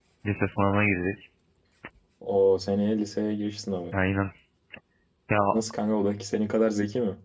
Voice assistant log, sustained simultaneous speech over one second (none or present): none